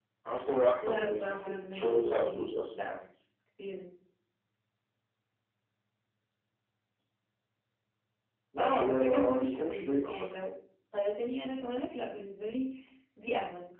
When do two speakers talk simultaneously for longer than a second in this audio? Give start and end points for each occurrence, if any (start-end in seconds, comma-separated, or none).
0.8-2.7, 8.6-10.1